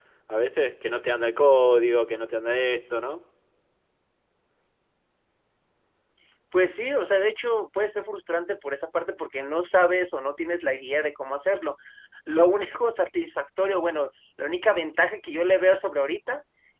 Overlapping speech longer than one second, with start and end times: none

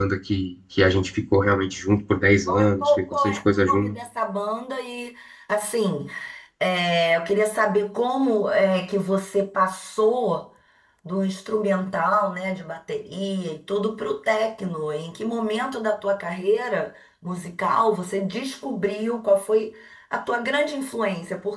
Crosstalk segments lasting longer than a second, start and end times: 2.5-4.0

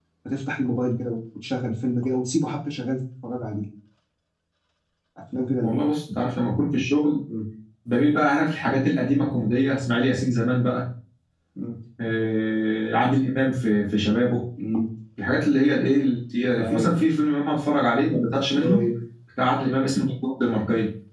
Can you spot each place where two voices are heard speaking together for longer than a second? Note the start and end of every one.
none

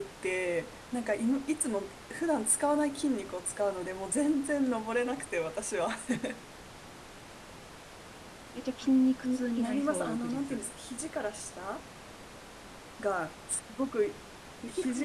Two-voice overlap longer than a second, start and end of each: 9.3-10.6

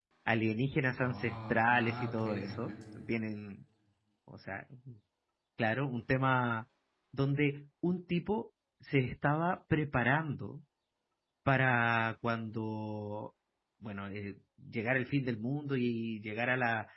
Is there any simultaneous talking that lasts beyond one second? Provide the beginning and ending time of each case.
1.0-2.7

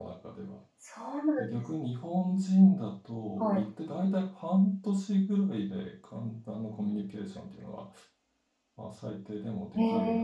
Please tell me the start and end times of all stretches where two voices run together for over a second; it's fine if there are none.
none

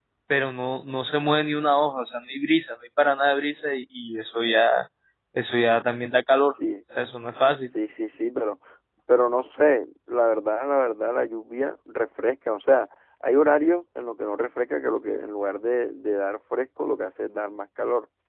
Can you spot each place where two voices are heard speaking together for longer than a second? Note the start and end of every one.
none

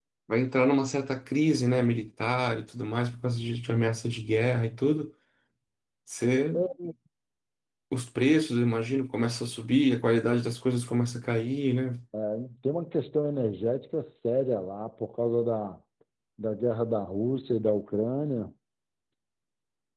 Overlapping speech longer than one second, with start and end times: none

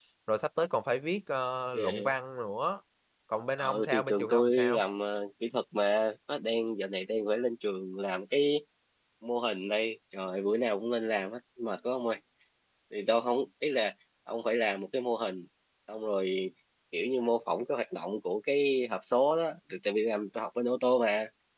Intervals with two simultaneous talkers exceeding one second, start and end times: 3.6-4.8

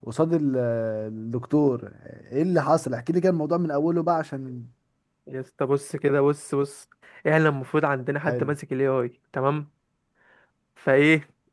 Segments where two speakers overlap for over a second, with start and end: none

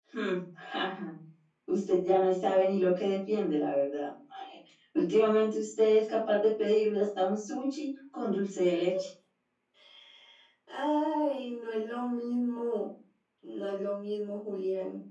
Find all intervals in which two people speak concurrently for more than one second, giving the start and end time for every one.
none

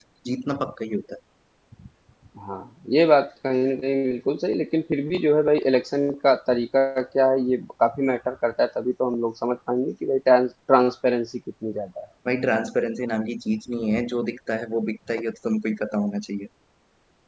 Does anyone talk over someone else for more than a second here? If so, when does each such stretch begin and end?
none

